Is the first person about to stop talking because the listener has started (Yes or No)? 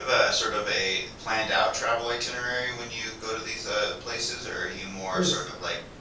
No